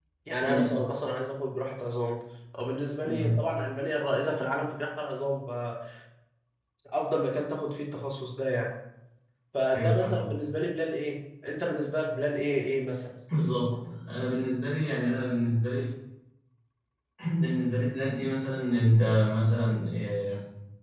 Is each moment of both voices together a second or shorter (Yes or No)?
Yes